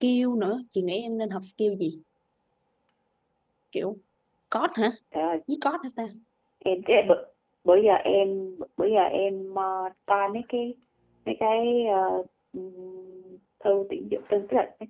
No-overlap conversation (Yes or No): Yes